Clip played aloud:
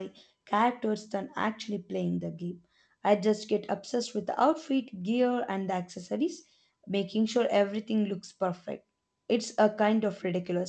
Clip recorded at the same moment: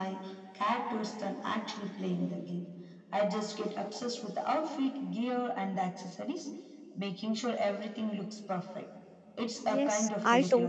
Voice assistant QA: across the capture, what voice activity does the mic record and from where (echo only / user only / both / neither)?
both